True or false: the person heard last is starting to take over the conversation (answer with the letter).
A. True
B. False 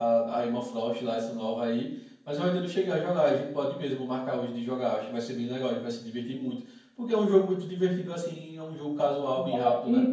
A